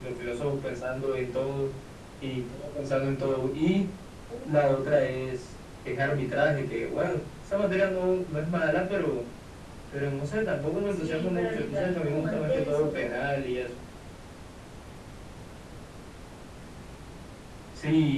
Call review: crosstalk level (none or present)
present